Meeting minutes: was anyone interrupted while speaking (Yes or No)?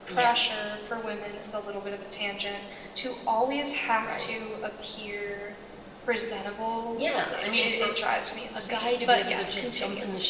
Yes